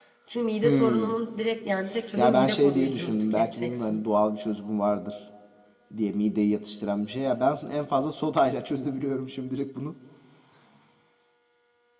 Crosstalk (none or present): present